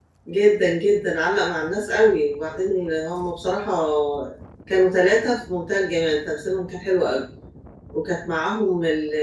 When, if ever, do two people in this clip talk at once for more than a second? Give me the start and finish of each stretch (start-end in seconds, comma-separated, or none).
none